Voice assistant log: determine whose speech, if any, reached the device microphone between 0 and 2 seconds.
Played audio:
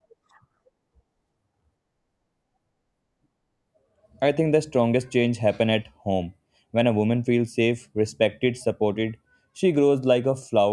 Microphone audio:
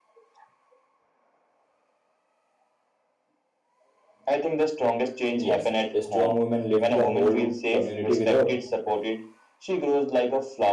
neither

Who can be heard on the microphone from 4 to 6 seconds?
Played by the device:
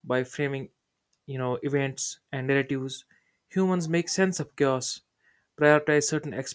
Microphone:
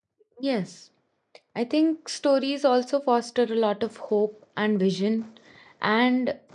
user only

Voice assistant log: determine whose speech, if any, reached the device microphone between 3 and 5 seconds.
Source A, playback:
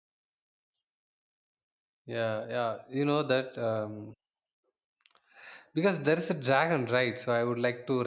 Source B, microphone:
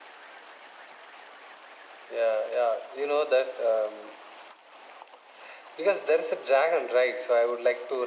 echo only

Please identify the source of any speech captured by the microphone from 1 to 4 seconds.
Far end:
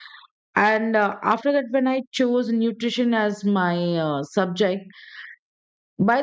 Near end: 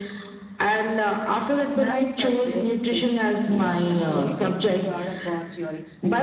both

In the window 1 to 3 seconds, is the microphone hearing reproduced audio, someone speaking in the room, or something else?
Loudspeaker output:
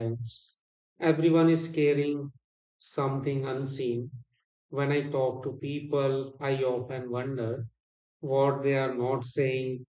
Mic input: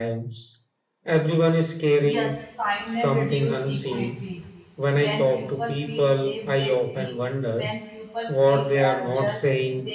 both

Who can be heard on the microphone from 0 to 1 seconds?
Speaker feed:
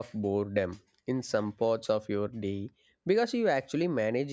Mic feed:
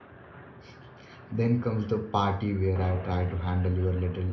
neither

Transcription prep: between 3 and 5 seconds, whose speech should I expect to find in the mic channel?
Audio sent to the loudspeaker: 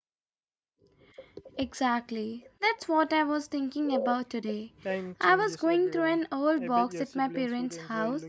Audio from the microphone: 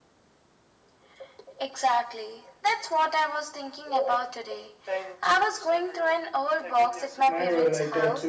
echo only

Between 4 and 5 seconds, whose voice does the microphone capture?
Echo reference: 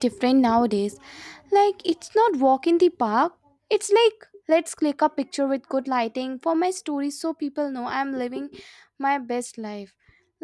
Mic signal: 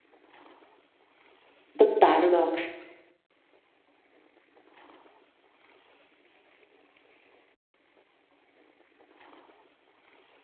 neither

